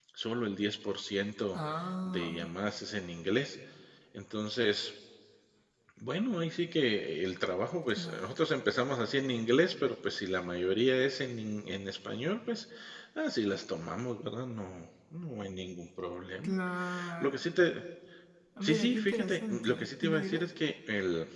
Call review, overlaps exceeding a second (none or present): present